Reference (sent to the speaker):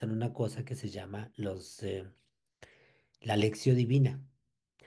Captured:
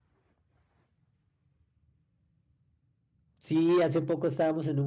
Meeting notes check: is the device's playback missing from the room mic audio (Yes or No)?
Yes